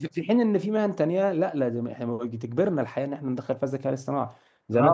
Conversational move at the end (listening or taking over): taking over